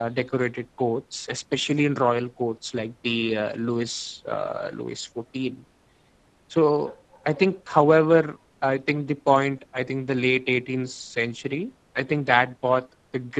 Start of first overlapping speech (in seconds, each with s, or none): none